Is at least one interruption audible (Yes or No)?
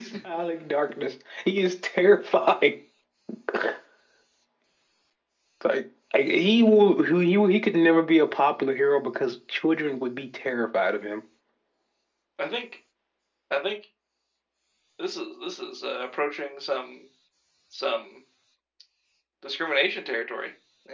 No